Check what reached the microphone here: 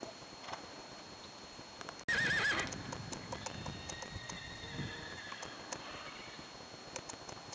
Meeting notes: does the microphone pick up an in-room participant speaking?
No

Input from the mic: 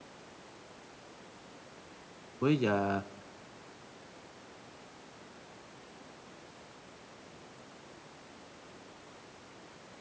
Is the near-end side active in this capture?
Yes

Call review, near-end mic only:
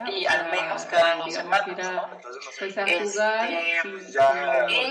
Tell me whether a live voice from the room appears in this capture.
Yes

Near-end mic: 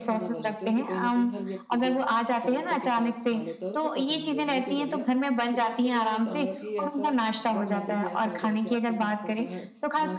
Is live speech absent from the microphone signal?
No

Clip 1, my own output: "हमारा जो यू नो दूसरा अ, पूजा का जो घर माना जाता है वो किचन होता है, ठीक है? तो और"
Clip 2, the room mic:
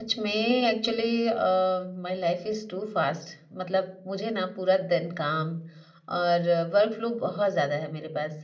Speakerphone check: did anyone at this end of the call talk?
Yes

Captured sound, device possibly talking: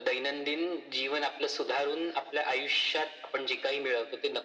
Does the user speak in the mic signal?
No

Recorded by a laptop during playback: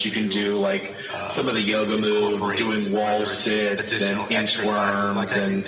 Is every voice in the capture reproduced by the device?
No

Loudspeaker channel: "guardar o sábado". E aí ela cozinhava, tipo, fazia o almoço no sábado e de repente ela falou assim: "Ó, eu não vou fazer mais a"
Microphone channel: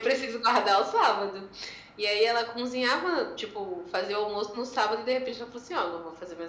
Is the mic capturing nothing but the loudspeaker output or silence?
Yes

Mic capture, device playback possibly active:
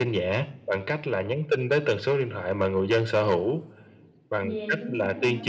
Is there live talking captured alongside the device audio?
Yes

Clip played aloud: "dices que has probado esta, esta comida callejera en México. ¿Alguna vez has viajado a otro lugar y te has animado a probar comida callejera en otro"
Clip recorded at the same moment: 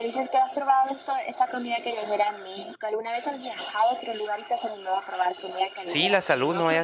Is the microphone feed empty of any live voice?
No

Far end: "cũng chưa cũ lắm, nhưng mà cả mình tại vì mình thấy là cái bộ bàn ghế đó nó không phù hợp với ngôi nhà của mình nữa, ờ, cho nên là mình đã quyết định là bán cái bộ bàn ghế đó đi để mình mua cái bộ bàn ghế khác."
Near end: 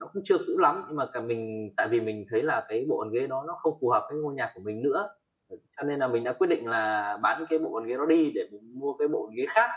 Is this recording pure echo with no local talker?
Yes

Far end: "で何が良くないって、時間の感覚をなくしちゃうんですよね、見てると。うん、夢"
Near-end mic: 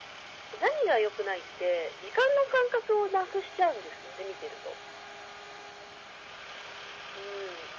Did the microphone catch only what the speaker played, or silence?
Yes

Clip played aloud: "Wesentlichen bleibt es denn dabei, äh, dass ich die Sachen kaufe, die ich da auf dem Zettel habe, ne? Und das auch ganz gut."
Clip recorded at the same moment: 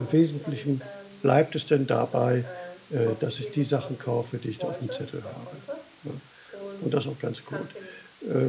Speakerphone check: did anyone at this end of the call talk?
Yes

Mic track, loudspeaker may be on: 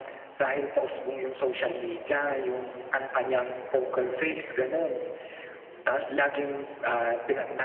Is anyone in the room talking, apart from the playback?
No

